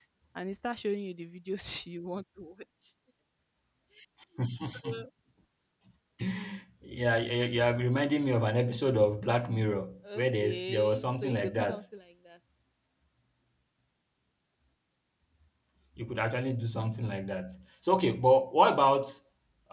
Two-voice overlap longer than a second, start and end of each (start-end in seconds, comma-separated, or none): 10.2-11.8